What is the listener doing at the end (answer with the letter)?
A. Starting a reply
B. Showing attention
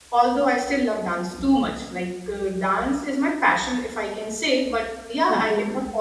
B